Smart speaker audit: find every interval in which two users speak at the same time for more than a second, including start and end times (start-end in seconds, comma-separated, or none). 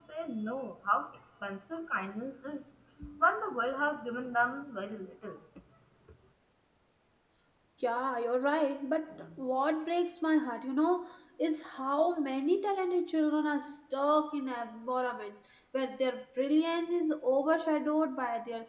none